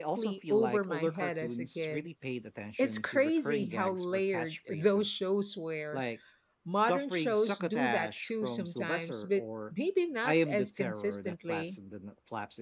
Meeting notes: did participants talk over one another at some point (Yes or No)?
Yes